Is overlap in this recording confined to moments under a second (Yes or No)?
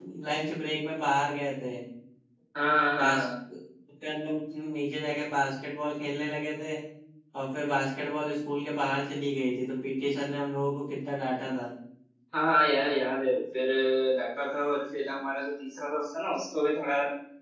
Yes